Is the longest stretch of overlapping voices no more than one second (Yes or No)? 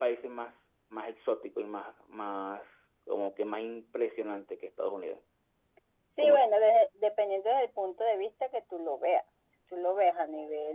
Yes